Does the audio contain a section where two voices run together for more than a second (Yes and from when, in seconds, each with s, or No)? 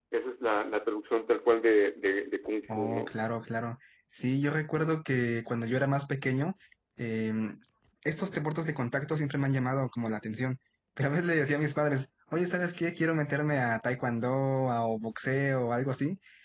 No